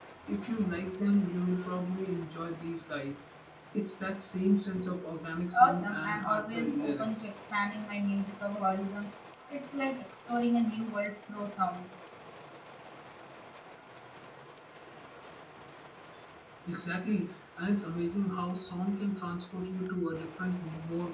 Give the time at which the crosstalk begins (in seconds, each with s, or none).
5.5 s